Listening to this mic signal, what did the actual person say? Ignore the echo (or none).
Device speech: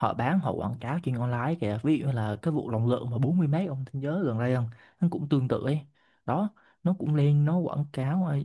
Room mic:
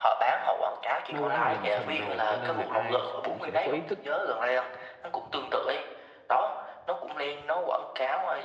nó quá là lầm sầm rồi cho nên là ai cũng sẽ có ý thức